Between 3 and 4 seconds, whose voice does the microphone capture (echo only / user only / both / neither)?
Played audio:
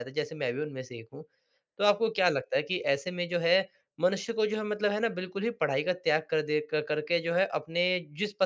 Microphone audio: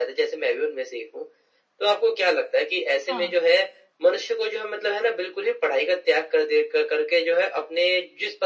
both